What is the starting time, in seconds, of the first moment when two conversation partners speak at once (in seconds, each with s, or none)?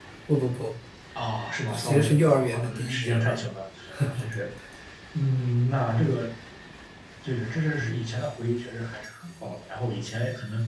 1.7 s